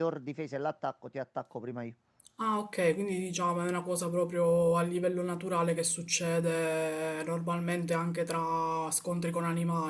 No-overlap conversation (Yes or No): Yes